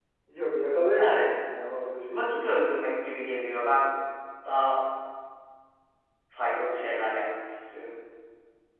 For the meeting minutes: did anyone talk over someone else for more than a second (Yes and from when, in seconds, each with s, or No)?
No